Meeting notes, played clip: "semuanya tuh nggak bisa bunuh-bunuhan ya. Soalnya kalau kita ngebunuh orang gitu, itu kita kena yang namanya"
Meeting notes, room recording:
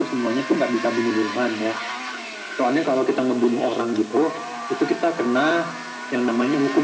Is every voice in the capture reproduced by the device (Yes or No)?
Yes